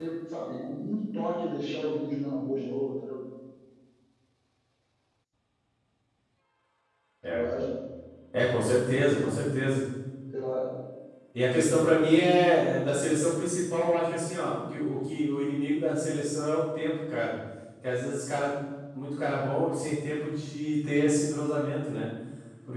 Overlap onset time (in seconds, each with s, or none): none